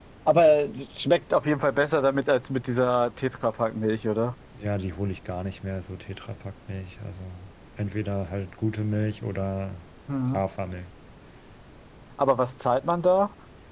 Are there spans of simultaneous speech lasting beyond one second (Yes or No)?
No